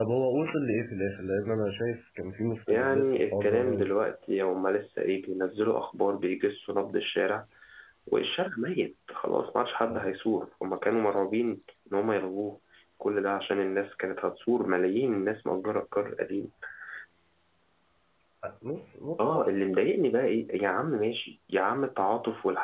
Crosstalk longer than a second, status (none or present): present